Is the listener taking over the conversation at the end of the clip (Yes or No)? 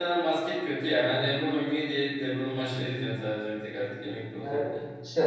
Yes